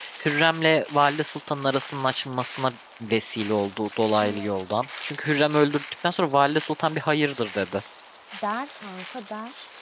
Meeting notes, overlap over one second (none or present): none